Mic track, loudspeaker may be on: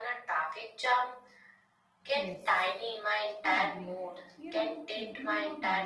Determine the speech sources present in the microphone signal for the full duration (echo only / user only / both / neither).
both